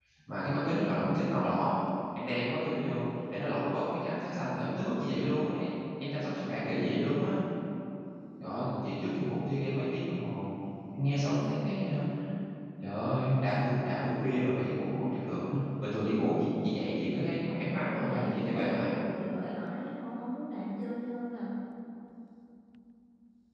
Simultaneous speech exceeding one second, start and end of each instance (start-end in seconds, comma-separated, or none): 17.7-19.0